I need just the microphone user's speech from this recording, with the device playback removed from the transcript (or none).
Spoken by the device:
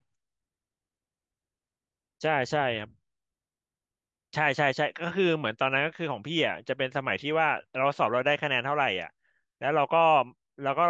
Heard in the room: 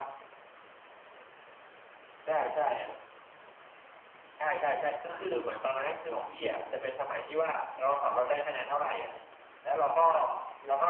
none